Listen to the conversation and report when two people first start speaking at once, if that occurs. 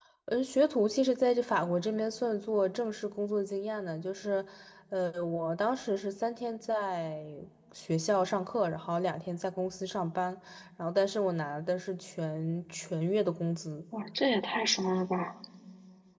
none

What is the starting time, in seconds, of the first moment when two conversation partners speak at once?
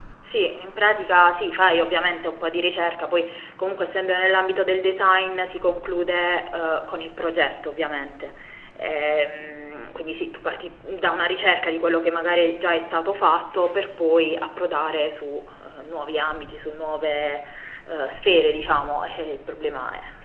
none

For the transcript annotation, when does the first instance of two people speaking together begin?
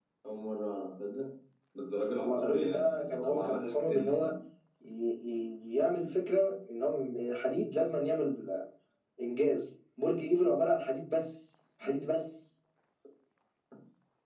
2.2 s

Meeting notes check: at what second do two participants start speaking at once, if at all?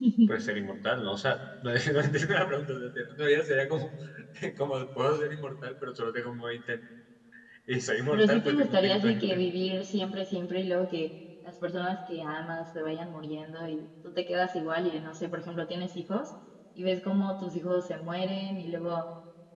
8.1 s

